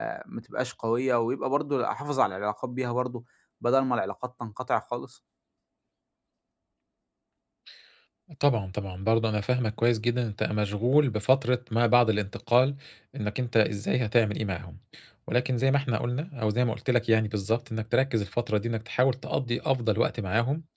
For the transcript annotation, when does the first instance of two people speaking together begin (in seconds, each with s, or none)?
none